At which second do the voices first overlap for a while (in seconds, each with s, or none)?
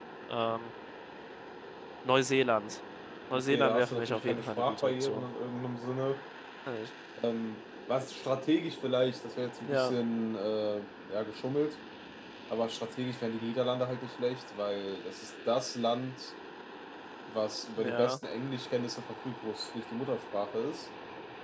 3.3 s